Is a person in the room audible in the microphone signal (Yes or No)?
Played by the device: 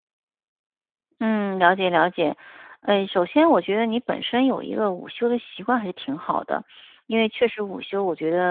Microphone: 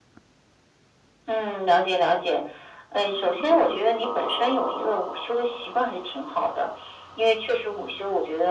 No